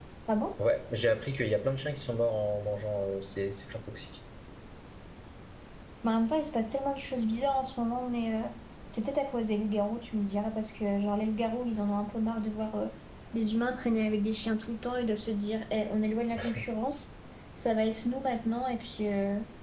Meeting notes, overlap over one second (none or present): none